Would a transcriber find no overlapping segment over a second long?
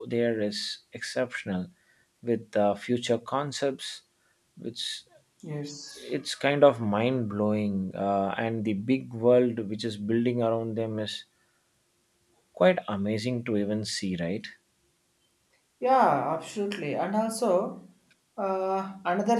Yes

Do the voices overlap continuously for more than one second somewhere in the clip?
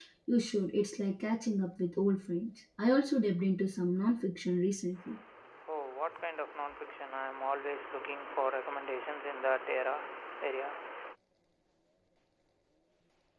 No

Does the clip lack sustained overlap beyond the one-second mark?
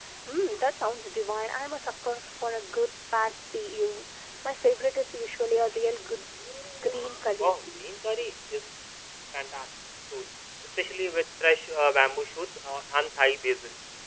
Yes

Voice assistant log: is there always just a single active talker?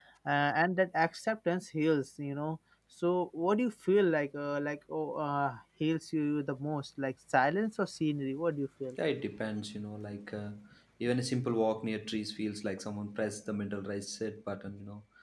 Yes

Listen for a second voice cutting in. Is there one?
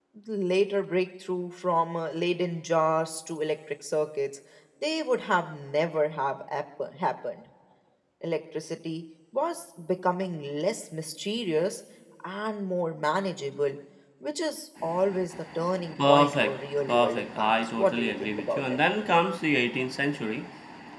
Yes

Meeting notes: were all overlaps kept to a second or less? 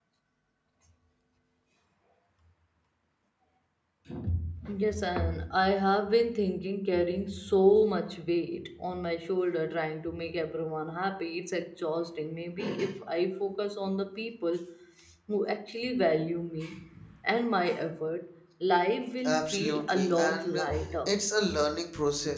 No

